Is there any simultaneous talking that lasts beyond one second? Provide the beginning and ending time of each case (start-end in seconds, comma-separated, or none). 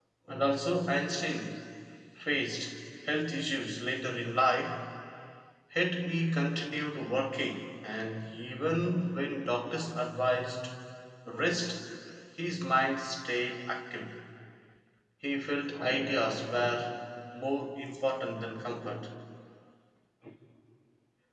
none